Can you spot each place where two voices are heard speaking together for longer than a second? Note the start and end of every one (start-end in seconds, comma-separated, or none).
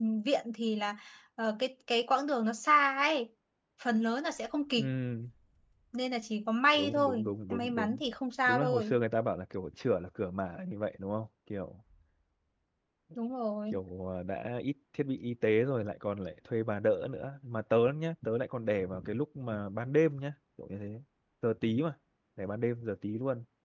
6.8-8.0